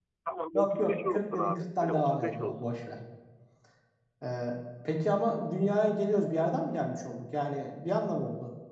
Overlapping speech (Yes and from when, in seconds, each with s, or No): Yes, from 0.5 s